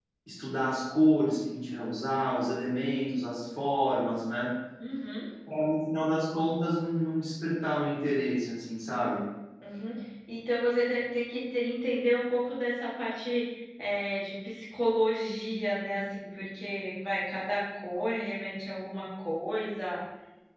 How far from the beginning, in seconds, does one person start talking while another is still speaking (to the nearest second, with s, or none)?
none